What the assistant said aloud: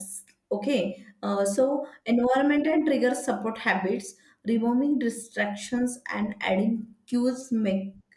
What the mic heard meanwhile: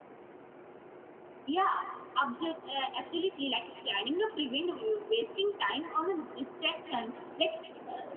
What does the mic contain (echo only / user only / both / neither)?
user only